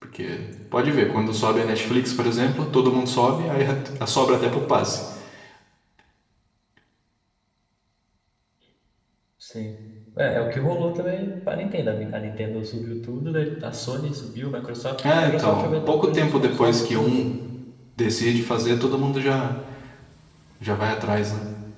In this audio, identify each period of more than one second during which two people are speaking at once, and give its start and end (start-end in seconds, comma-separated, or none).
15.0-17.3